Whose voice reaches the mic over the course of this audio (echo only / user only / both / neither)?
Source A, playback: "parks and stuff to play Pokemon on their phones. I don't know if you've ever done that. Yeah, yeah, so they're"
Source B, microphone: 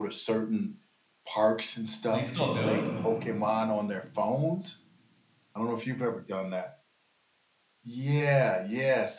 both